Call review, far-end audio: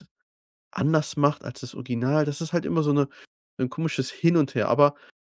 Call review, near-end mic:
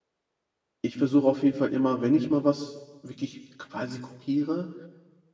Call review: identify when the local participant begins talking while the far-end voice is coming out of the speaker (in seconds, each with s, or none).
0.8 s